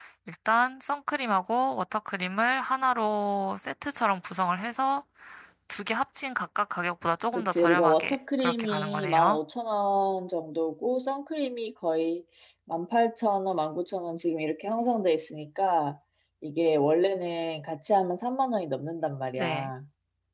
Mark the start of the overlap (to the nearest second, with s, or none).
7 s